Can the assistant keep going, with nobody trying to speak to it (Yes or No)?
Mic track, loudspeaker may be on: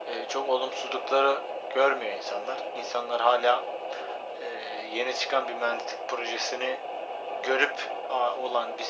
Yes